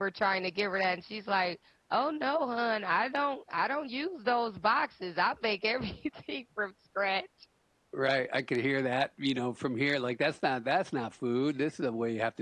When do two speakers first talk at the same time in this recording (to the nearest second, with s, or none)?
none